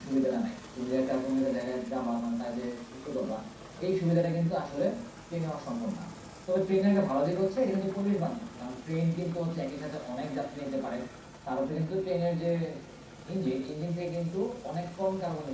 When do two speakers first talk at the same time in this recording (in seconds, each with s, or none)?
none